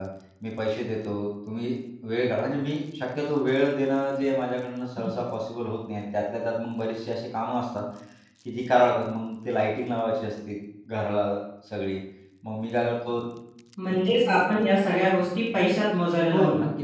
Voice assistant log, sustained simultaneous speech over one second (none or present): none